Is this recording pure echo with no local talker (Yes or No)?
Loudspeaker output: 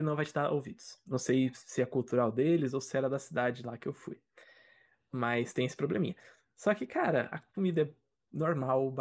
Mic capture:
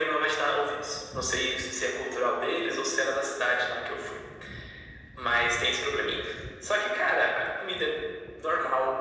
Yes